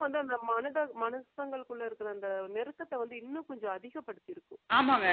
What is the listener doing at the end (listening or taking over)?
taking over